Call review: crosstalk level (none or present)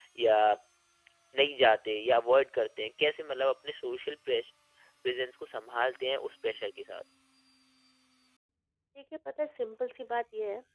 none